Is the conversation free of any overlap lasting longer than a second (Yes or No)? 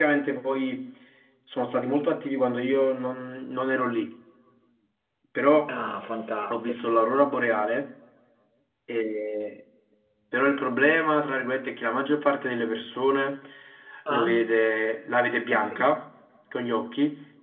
Yes